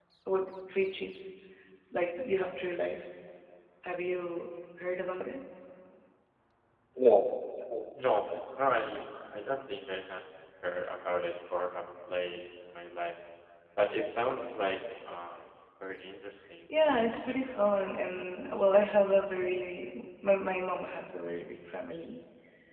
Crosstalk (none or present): none